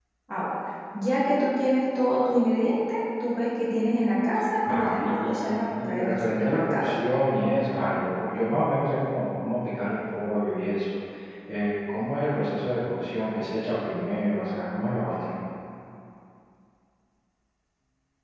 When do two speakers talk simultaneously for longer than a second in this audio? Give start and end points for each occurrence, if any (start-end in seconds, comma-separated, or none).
4.7-6.9